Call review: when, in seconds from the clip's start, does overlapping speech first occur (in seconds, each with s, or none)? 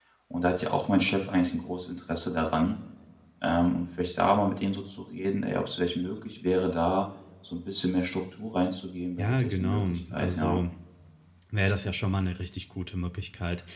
9.2 s